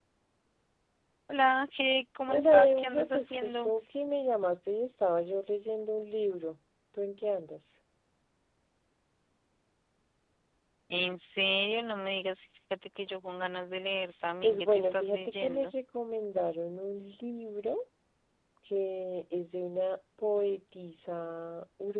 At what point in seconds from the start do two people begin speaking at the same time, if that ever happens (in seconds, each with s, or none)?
2.3 s